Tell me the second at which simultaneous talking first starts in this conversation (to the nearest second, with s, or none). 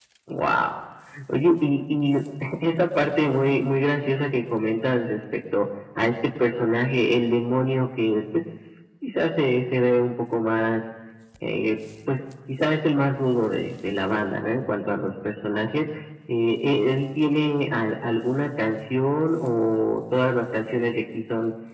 none